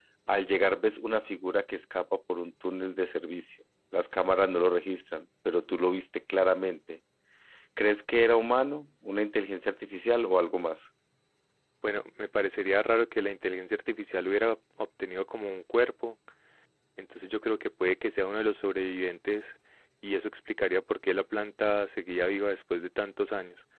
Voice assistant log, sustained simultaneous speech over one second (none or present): none